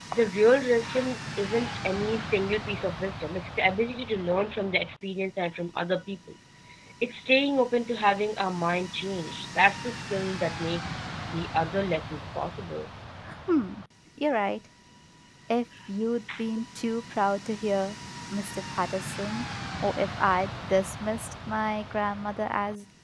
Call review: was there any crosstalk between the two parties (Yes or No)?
No